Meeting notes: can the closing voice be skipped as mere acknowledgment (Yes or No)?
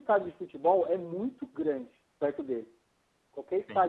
Yes